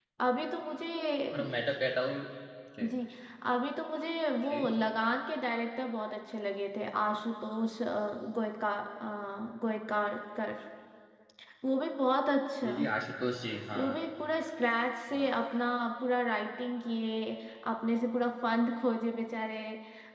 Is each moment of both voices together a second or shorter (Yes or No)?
Yes